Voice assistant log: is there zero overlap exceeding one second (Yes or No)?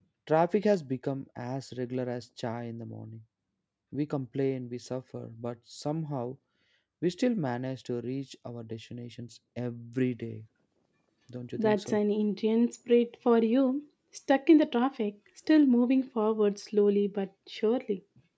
Yes